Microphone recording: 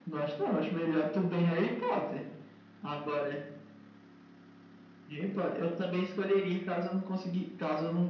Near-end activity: none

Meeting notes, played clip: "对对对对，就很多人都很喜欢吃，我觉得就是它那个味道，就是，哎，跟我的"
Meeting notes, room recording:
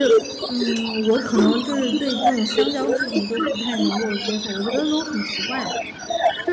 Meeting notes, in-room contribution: present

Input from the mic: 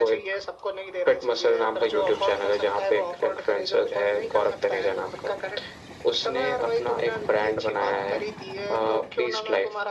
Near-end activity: none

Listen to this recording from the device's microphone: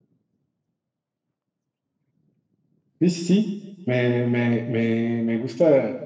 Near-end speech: present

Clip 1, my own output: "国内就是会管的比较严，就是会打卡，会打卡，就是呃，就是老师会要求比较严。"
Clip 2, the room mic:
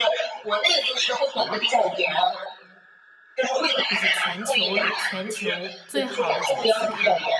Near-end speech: present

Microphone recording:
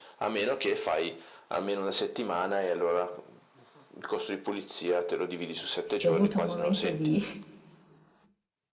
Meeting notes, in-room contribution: present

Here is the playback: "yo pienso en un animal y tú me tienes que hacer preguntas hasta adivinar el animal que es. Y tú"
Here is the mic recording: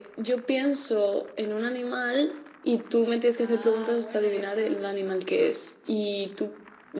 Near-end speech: present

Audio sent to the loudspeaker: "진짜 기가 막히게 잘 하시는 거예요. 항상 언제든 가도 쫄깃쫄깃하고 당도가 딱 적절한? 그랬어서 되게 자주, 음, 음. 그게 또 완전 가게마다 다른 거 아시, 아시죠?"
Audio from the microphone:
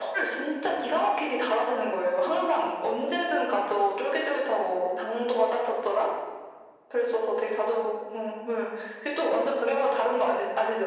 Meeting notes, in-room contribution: none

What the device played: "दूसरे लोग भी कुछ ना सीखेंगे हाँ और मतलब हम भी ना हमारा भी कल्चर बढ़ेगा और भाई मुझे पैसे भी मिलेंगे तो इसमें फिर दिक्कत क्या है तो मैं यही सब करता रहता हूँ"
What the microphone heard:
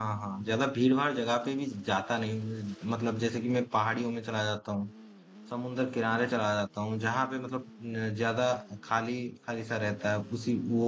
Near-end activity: present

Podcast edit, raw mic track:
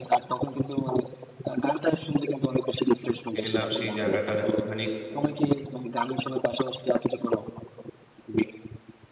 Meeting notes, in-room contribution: present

